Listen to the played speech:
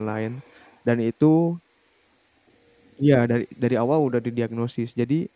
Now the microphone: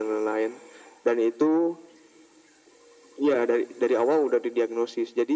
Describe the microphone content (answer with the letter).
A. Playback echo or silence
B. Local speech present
A